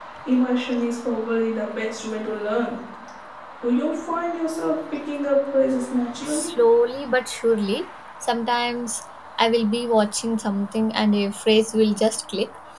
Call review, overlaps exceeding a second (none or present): none